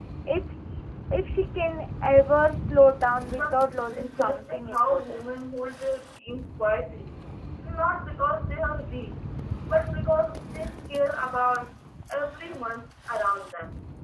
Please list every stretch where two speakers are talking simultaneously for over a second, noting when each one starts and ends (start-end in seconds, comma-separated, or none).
3.4-5.2